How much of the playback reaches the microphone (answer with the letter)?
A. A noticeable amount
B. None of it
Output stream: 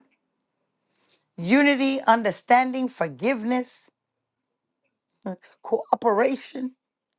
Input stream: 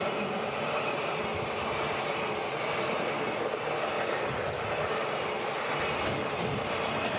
B